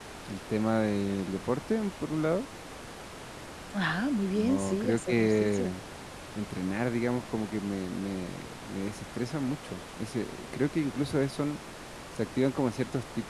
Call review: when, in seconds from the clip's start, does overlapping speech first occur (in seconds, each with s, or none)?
4.3 s